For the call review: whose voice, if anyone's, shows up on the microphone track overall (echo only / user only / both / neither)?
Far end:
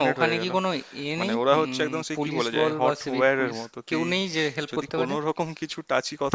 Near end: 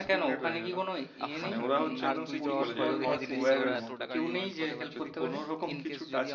both